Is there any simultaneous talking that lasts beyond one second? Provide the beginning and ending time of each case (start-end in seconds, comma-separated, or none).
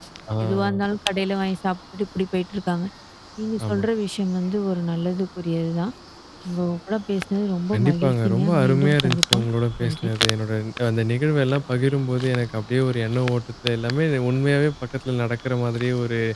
7.7-9.5